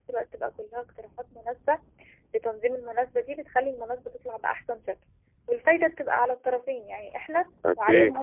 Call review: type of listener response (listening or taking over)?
listening